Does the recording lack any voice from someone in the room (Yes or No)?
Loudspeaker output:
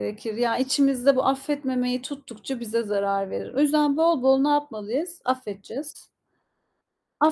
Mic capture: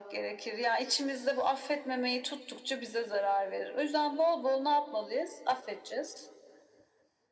Yes